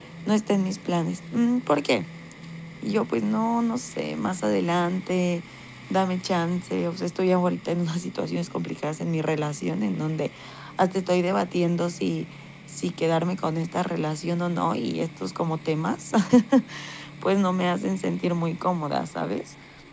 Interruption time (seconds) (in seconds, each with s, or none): none